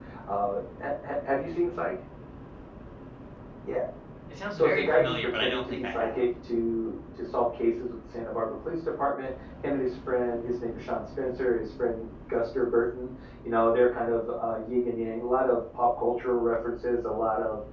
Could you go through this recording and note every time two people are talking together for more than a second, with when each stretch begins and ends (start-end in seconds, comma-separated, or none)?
4.6-6.3